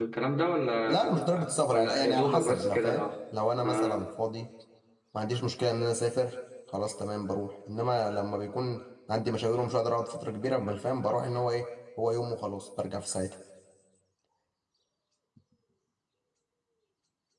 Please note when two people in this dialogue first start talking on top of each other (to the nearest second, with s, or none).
1 s